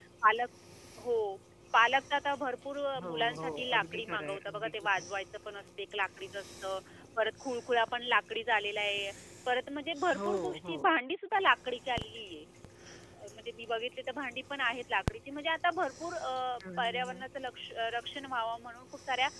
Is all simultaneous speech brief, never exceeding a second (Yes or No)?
No